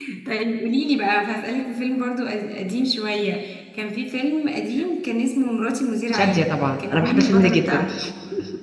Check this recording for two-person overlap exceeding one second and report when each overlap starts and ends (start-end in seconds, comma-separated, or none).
6.1-7.8